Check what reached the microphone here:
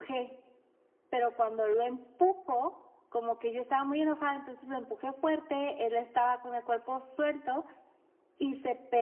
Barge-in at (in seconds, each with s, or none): none